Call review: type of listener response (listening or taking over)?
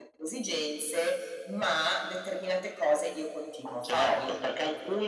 taking over